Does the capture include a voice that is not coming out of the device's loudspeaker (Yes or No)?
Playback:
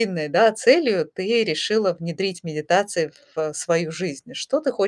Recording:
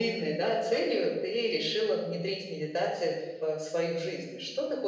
No